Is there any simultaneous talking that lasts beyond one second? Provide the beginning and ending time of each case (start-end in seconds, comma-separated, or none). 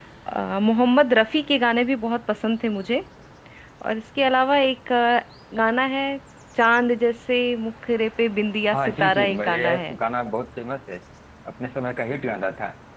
8.7-10.0